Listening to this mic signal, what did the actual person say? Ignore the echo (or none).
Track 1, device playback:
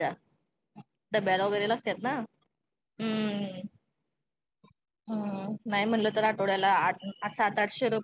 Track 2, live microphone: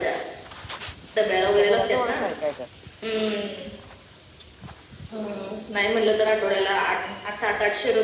तुमच्या घरा जवळच आहे काय घर